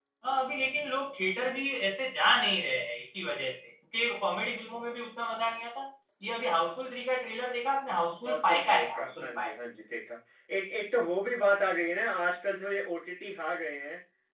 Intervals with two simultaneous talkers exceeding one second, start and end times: 8.2-9.5

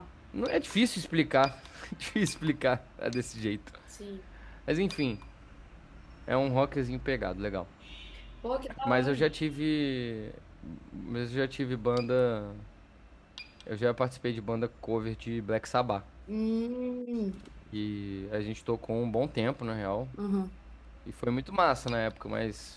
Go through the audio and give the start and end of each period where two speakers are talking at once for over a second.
none

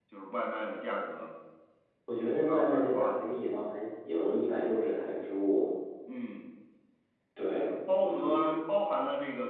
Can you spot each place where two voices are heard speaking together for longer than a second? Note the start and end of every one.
2.2-3.5

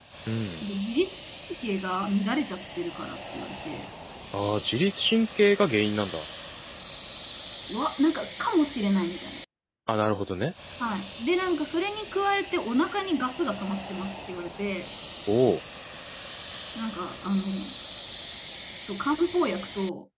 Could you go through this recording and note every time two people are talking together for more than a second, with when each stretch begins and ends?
none

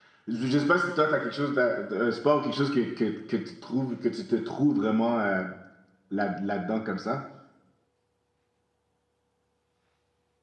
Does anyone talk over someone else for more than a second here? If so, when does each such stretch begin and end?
none

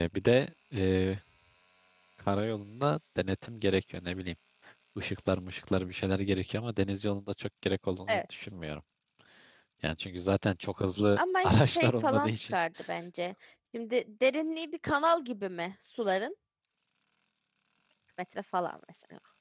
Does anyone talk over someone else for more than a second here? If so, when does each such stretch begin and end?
11.2-12.6

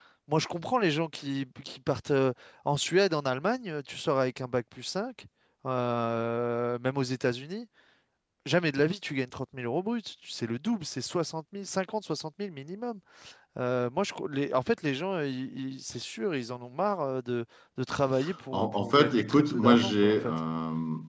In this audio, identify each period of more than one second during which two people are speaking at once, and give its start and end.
18.5-20.3

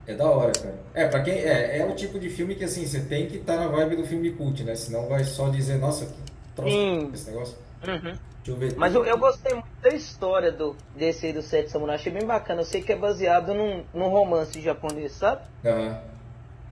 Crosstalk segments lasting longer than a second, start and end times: none

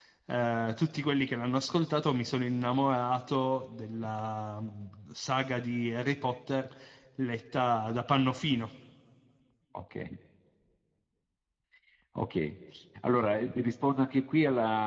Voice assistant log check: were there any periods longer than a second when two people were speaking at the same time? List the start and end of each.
none

